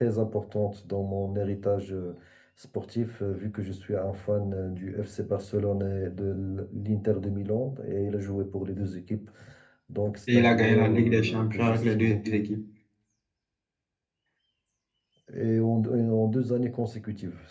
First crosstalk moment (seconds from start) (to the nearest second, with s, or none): 10 s